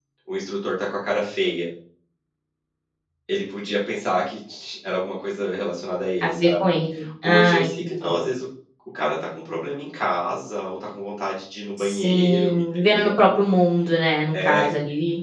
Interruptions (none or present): present